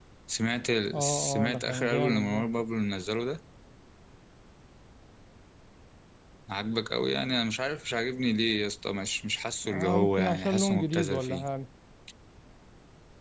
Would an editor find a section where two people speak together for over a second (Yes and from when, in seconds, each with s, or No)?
Yes, from 0.9 s